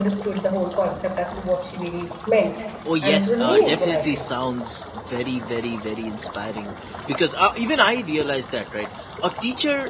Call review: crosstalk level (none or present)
present